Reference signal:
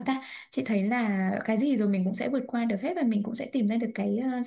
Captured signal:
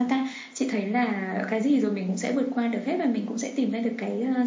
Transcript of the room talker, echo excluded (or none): none